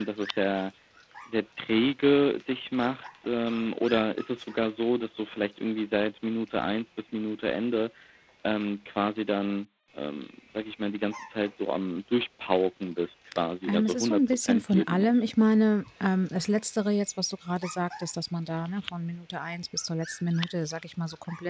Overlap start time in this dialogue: 14 s

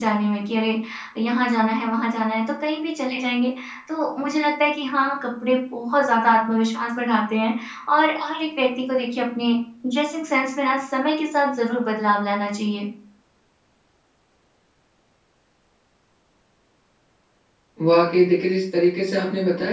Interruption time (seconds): none

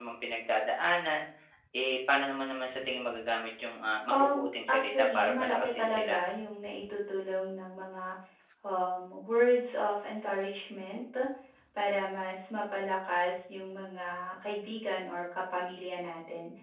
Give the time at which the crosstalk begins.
4 s

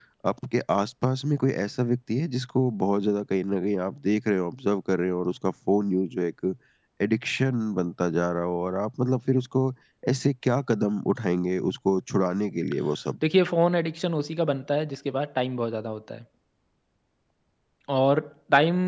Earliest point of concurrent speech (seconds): none

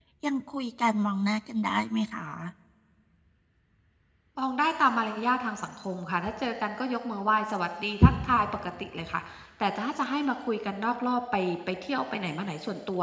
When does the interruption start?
none

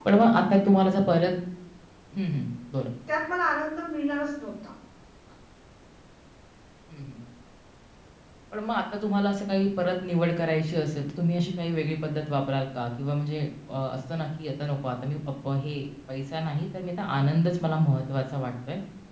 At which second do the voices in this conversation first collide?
none

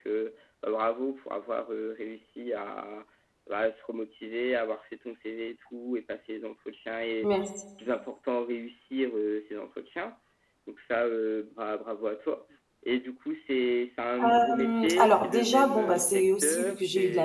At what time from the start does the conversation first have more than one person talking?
14 s

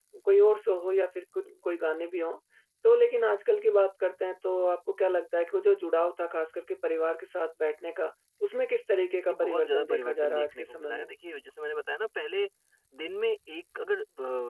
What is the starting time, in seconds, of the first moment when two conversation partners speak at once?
9 s

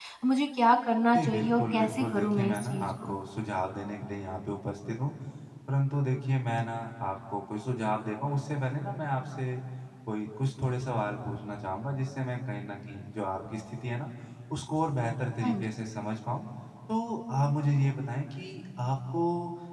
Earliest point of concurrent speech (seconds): 1 s

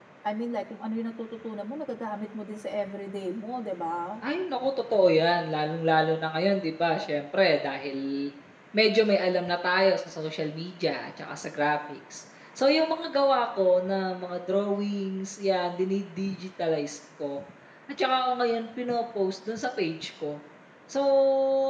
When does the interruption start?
none

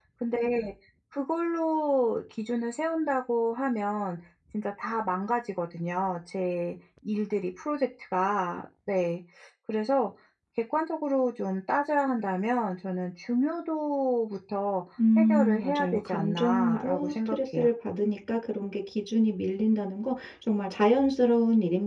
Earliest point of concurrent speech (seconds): 15 s

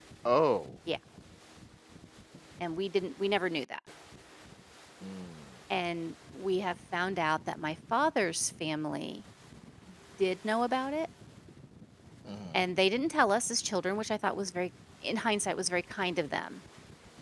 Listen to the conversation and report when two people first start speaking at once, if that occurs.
none

